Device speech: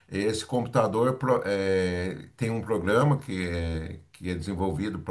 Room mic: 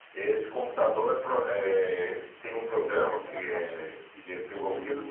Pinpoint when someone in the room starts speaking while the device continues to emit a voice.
1 s

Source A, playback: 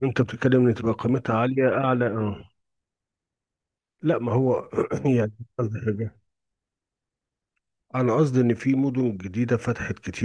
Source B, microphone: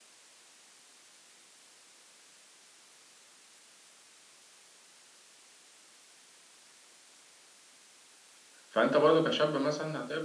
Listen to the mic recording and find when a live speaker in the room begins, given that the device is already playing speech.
9 s

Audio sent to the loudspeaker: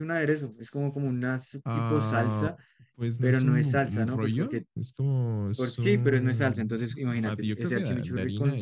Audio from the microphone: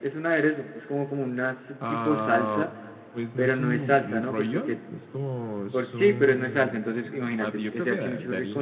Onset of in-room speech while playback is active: none

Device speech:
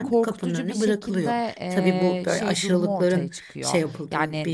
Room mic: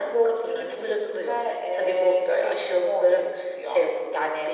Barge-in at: none

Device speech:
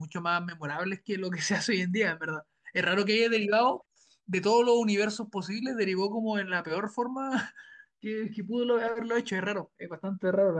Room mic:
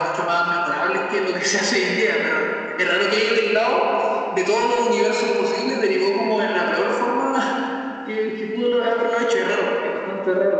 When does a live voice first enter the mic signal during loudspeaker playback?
none

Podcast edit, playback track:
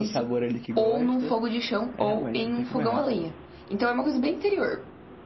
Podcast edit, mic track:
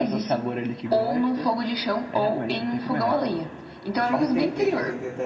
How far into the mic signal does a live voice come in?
4 s

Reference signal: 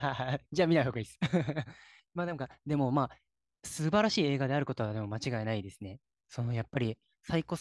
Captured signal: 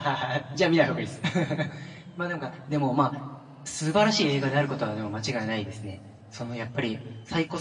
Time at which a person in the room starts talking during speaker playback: none

